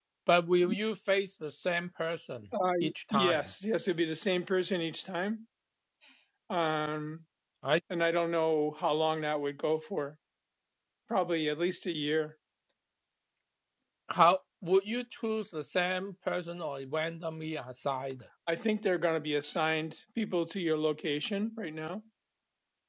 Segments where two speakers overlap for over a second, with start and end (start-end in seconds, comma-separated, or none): none